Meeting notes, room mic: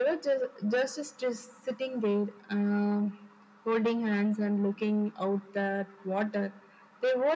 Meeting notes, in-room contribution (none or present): none